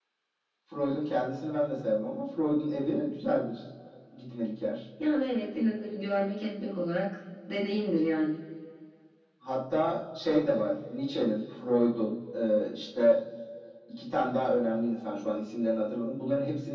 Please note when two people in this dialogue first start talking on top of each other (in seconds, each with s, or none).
none